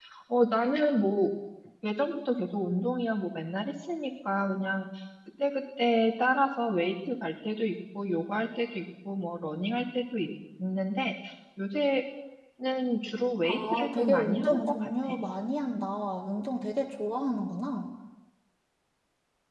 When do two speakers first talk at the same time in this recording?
13.4 s

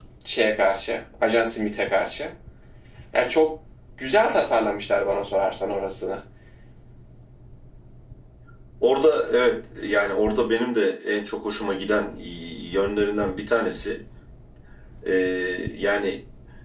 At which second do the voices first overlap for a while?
none

